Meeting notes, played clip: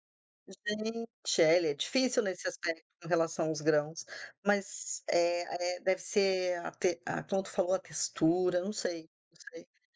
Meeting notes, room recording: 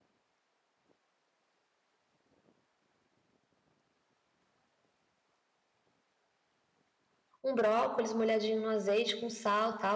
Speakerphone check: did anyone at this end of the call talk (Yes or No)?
Yes